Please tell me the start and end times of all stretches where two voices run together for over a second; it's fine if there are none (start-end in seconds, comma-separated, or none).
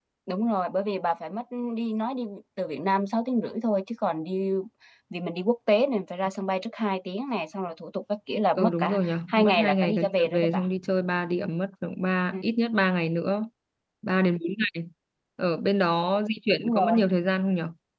8.6-10.6